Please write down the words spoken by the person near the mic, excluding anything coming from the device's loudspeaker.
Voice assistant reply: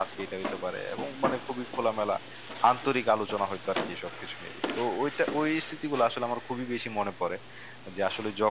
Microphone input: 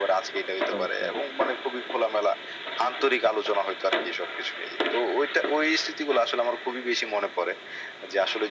চমৎকার।

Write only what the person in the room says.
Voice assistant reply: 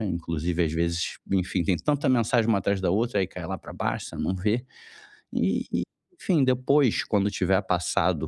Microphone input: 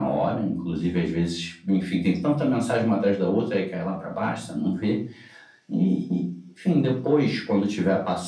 none

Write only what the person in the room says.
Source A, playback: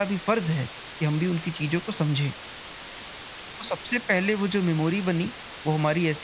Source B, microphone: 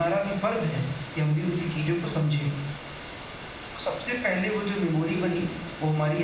कि

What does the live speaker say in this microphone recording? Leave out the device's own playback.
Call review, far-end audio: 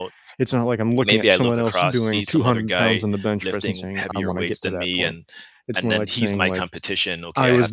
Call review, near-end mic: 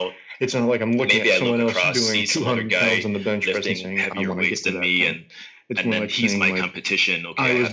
none

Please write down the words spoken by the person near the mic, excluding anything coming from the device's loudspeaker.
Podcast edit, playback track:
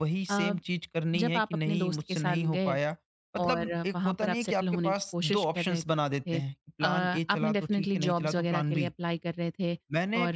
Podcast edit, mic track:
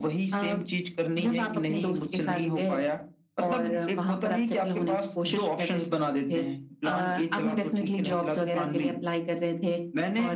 none

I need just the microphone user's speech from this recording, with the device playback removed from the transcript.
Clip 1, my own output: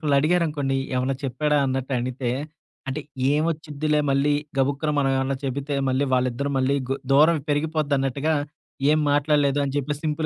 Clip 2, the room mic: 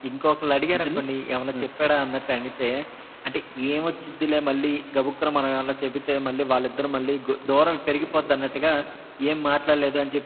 అంతేనా? ఓకే.

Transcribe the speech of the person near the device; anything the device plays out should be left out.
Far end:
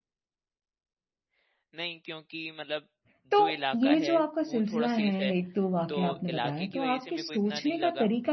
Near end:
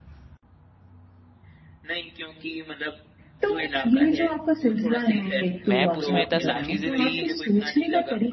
मैप उसमें था, सब चीज़ें थी,

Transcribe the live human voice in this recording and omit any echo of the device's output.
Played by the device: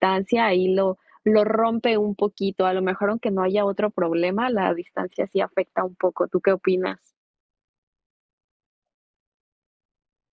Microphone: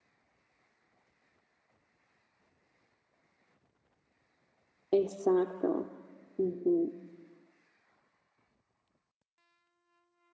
Exacto. Ujú.

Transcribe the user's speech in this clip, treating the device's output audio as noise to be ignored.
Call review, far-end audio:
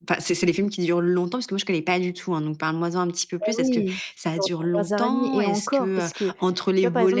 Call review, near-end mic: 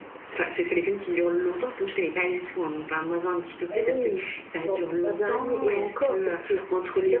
none

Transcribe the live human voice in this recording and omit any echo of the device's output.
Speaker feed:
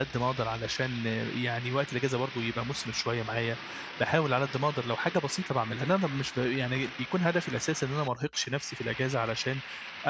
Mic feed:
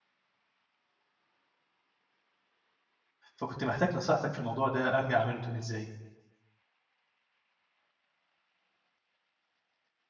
فكنت محتاج نصيحتك في الموضوع ده أرجع أعمله تاني إزاي؟

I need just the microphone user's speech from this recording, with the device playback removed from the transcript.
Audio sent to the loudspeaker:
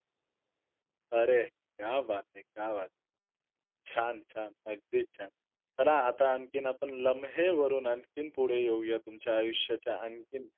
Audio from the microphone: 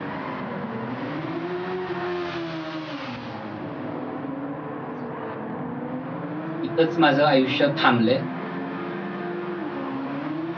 तिथंच माझं आयुष्य थांबलंय

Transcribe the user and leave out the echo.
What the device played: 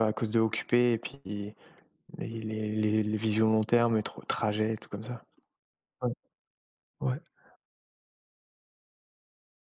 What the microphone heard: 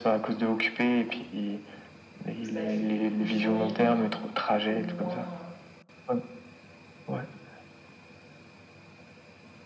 Du coup, ça fait des grosses journées mais au moins, heu,

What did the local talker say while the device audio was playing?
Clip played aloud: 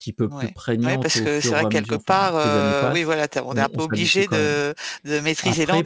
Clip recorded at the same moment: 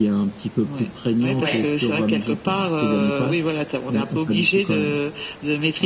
Ouais.

